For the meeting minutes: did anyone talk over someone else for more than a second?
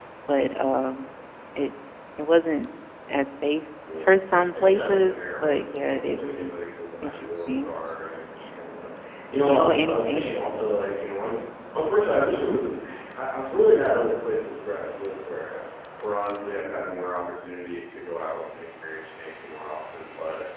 Yes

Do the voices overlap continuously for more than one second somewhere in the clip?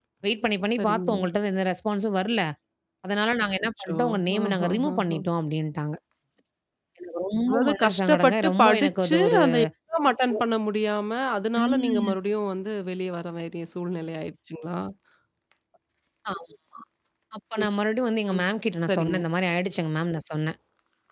Yes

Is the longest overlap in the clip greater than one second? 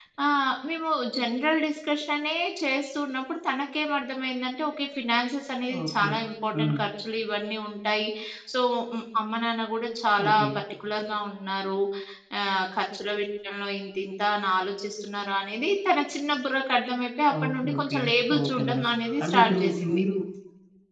Yes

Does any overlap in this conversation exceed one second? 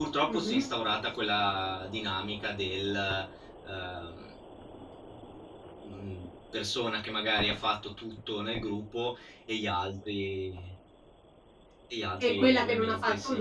Yes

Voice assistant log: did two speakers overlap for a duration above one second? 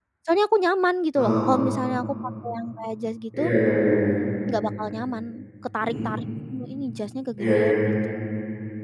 No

